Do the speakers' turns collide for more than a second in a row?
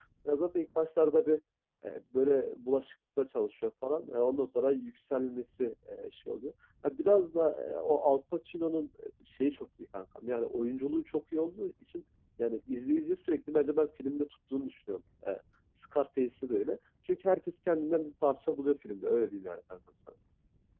No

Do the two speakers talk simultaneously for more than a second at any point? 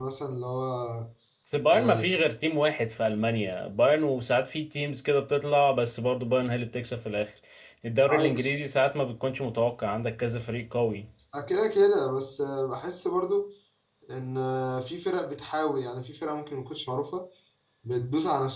No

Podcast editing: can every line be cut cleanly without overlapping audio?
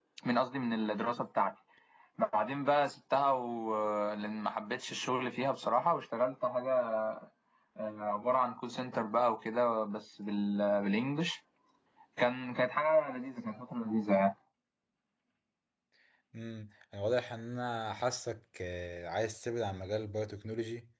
Yes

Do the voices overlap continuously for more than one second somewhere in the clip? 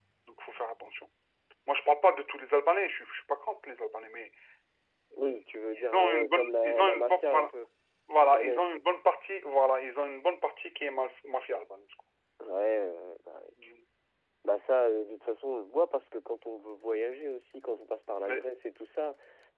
Yes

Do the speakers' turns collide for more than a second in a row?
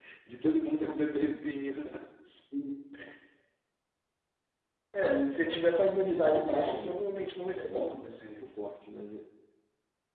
Yes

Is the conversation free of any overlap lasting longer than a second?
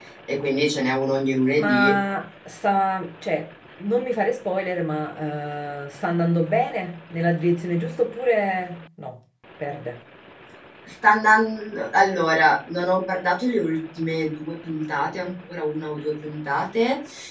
Yes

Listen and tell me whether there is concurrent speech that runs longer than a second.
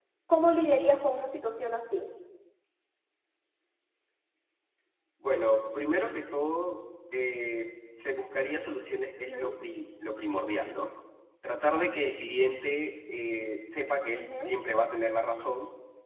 No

